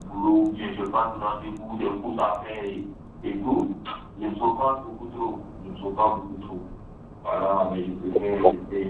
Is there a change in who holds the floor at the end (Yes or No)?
No